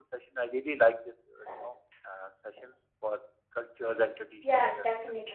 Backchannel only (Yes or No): No